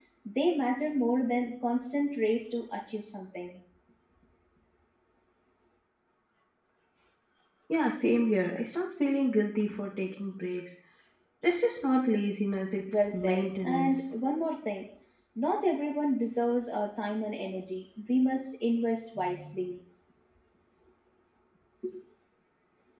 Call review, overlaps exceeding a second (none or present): present